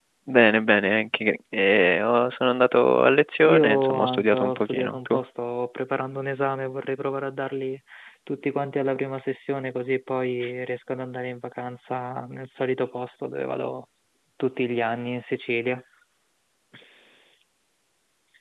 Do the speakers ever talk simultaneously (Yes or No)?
Yes